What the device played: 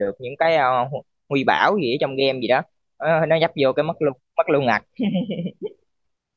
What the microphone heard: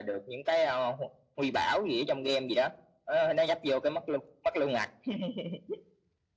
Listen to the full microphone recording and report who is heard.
echo only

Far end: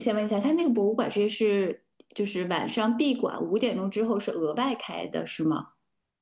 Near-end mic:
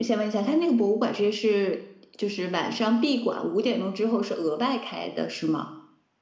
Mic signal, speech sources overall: echo only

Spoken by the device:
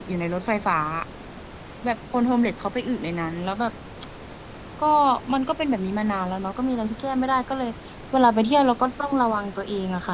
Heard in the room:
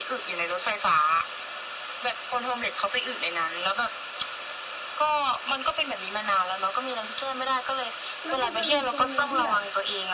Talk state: both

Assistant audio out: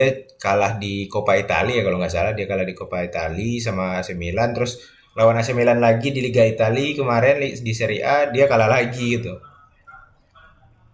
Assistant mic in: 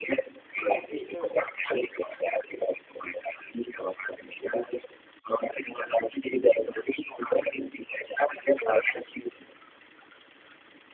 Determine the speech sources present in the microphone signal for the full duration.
both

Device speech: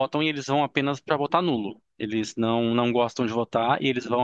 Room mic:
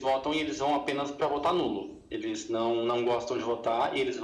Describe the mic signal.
echo only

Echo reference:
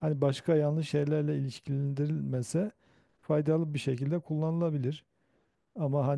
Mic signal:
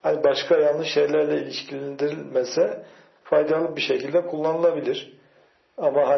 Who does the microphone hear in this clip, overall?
echo only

